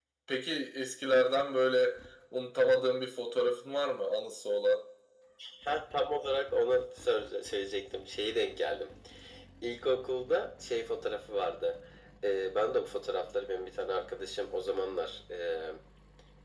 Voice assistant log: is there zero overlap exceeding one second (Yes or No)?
Yes